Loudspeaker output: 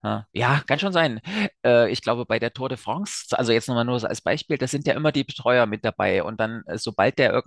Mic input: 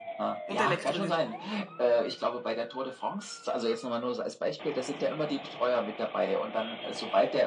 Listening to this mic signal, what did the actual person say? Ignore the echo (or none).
und Elektrolyten.